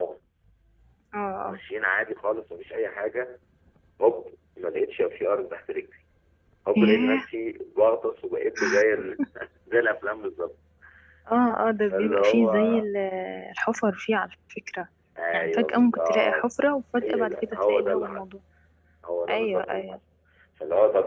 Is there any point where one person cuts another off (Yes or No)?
Yes